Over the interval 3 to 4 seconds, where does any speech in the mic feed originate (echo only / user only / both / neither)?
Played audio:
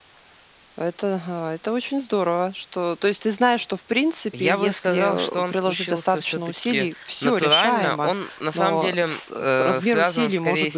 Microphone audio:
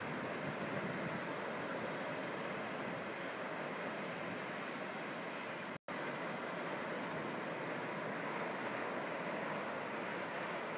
neither